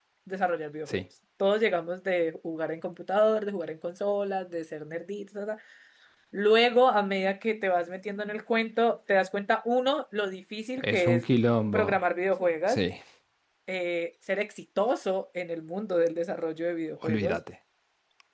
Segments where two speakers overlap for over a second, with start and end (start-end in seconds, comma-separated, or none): none